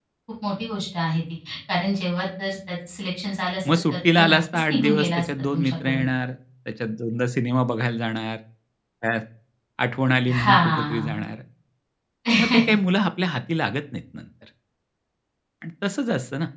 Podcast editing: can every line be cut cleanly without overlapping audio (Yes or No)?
No